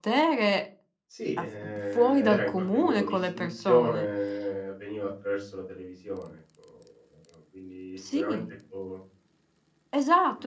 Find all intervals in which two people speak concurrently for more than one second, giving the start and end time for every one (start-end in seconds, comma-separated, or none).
1.4-4.1